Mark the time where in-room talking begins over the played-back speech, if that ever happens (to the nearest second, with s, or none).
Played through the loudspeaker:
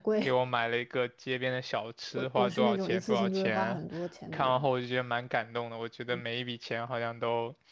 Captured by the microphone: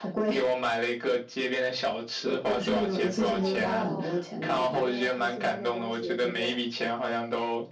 3 s